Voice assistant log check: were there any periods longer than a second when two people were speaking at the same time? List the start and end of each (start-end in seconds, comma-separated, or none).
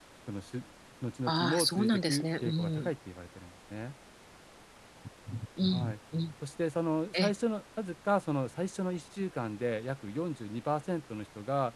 1.3-2.9